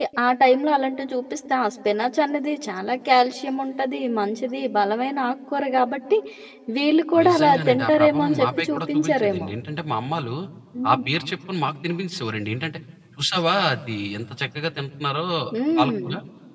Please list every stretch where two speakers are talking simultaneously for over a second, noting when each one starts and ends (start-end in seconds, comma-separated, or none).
7.2-9.5